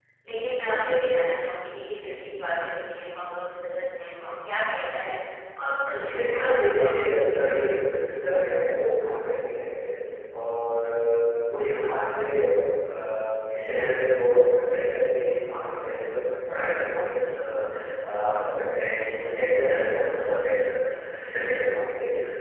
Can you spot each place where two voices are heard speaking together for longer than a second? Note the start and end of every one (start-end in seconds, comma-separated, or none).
6.0-8.0